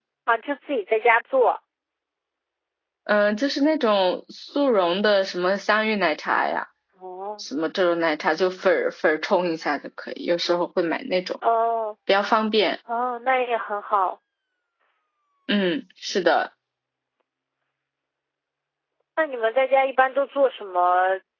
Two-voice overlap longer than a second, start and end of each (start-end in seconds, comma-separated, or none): none